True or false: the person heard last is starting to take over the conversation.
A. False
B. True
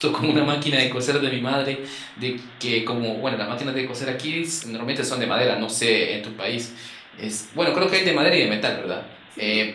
A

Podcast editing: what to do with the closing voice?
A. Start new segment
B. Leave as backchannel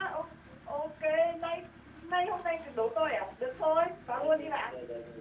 A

